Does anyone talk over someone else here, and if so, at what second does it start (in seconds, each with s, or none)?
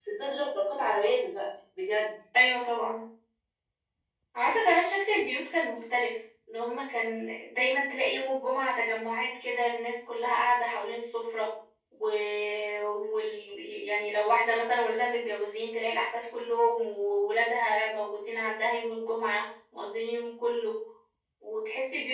none